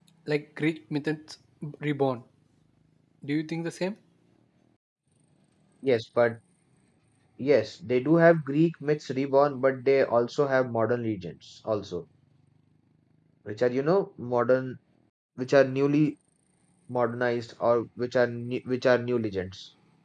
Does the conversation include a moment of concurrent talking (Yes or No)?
No